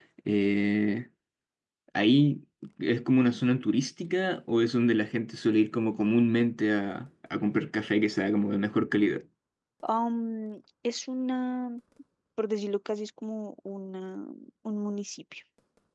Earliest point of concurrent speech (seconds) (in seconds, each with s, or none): none